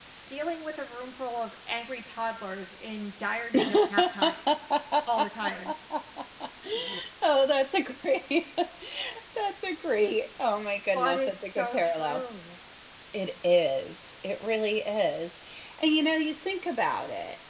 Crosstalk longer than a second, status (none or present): present